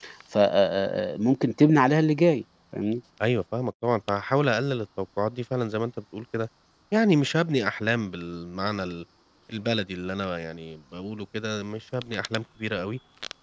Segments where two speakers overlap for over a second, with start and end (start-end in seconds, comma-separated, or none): none